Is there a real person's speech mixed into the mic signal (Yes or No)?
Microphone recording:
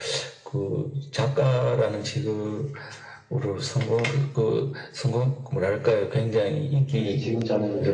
Yes